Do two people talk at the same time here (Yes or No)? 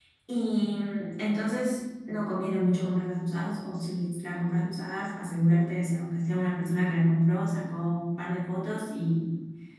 No